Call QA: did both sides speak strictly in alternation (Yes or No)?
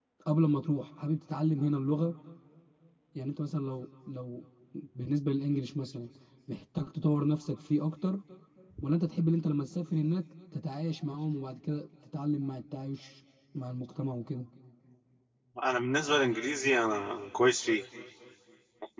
Yes